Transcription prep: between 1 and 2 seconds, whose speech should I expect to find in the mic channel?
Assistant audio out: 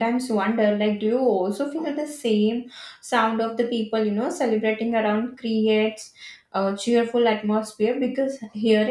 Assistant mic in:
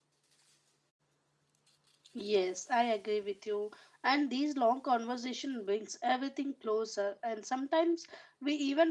neither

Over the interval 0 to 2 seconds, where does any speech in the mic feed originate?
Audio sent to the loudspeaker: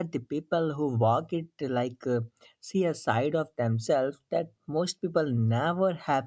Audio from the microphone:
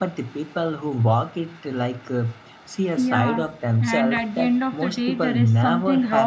echo only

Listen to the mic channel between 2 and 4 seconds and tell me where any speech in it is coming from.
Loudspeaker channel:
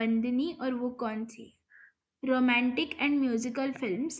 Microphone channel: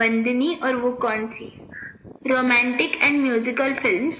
echo only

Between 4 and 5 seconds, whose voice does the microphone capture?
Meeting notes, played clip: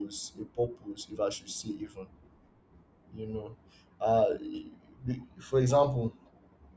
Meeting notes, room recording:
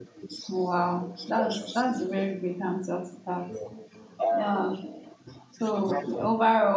both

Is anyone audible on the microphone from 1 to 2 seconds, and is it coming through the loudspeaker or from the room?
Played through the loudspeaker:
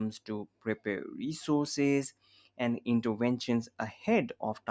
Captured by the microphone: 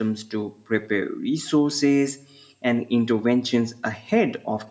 echo only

